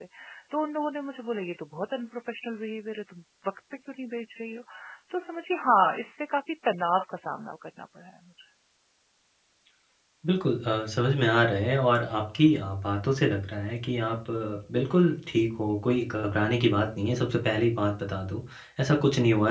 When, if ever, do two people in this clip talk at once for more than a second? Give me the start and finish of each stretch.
none

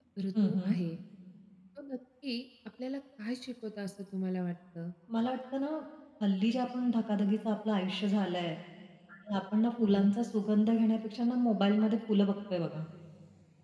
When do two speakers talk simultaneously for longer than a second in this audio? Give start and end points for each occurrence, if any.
none

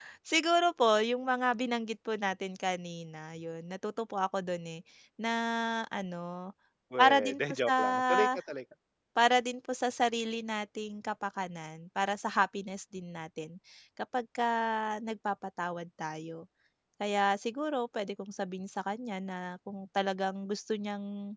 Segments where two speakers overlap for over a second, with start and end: 7.0-8.3

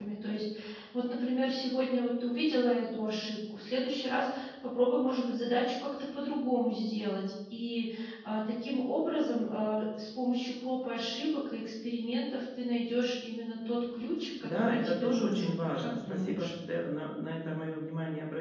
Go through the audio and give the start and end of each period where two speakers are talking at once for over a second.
14.4-16.5

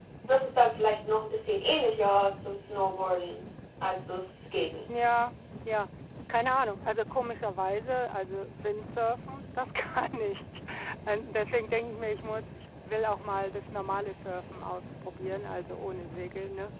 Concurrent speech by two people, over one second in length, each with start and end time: none

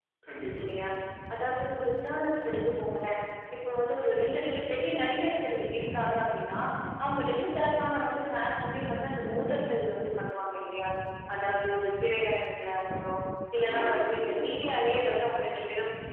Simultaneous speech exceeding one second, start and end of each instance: 13.6-15.0

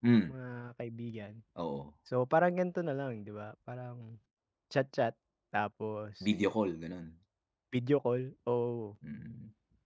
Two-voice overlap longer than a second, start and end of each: none

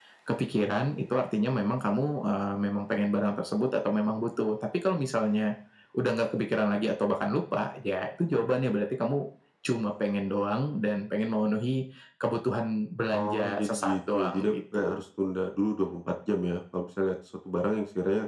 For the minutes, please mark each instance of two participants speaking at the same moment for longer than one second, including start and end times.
13.1-14.9

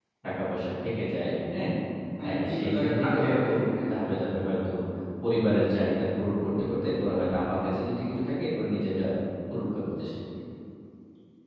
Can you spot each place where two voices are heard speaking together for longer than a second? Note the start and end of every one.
2.2-3.5

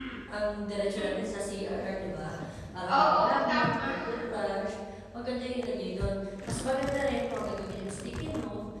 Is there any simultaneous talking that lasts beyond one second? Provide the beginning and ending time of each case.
2.9-4.2

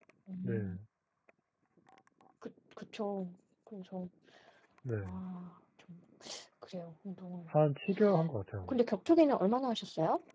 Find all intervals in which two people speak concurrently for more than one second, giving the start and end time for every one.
none

